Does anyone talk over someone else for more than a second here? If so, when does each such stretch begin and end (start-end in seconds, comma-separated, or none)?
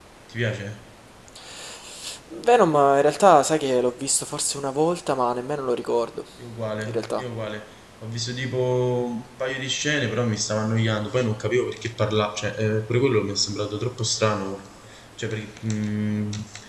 none